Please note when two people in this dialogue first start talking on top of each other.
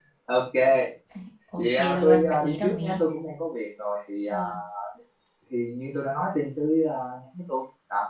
1.6 s

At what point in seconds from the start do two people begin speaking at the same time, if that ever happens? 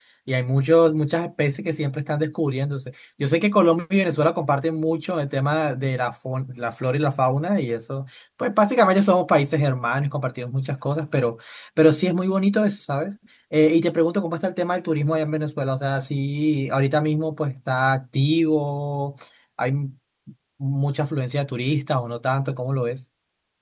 none

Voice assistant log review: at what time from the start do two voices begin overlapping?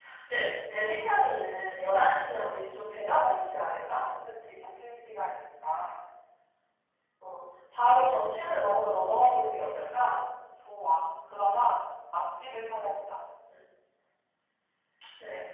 none

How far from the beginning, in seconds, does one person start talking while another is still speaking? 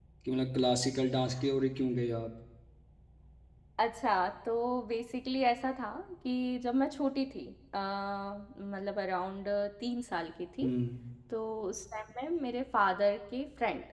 none

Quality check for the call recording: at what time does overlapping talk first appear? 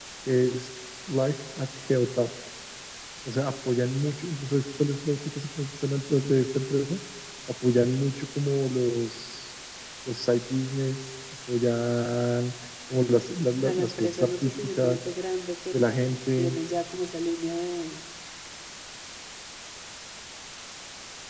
13.6 s

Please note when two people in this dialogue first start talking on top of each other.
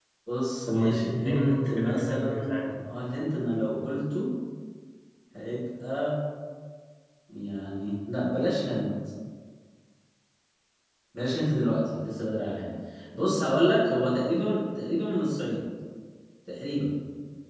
0.7 s

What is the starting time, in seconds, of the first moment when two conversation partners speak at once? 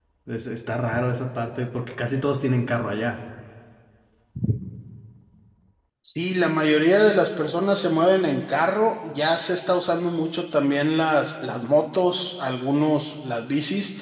none

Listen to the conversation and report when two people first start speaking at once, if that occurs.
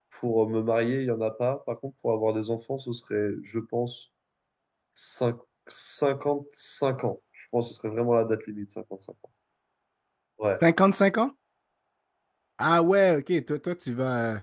none

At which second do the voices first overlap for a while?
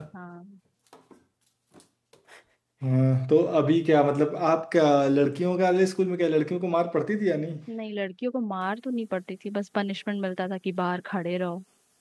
none

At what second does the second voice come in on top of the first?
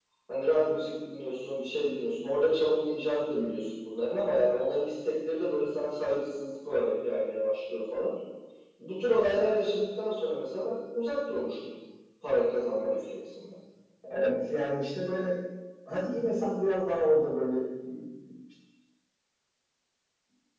none

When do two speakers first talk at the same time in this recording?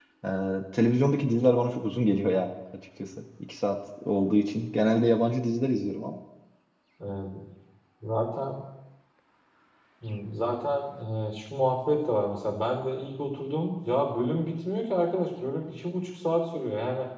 none

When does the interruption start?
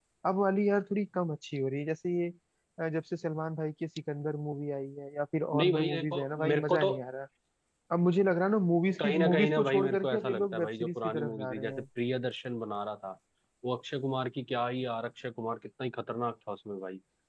5.5 s

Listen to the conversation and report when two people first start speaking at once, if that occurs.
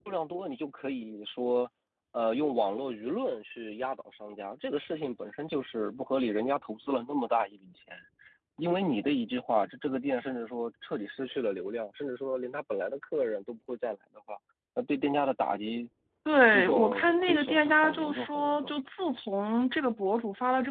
16.5 s

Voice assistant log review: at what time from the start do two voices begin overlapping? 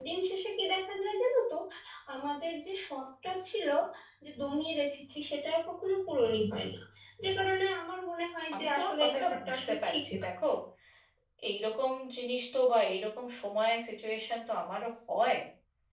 8.5 s

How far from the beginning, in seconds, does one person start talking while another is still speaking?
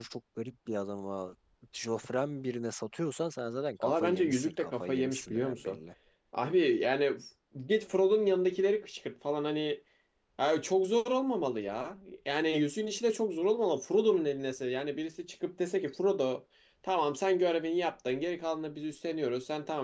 3.8 s

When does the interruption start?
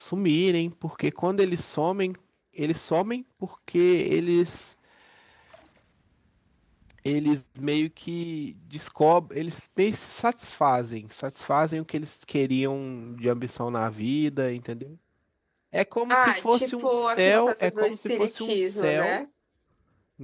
16.1 s

